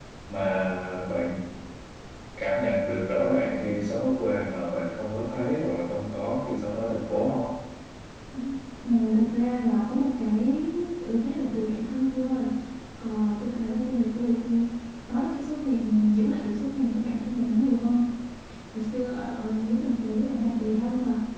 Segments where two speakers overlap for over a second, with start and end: none

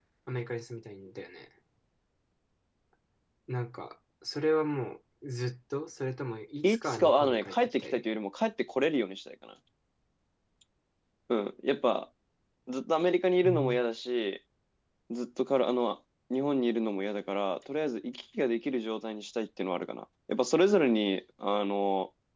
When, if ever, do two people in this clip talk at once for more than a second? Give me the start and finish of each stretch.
6.6-8.0

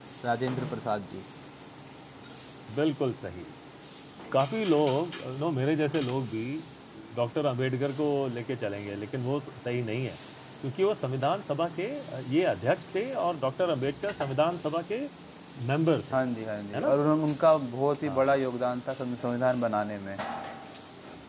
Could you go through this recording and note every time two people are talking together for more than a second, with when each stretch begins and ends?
none

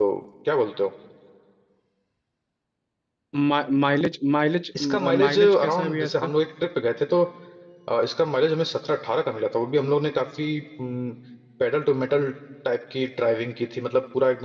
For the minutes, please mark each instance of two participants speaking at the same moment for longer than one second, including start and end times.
4.8-6.3

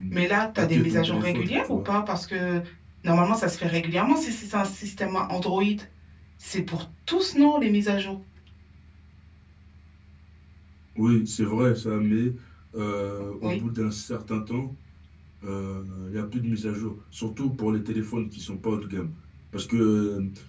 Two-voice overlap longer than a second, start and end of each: 0.6-1.9

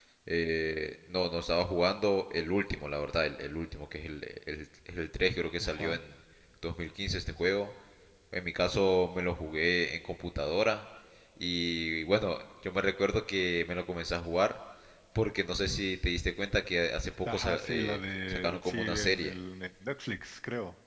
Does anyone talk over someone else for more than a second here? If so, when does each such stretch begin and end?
17.2-19.4

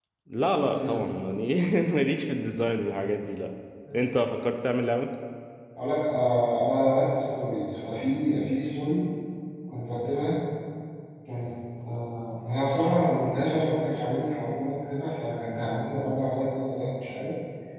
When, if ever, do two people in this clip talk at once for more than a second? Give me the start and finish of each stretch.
none

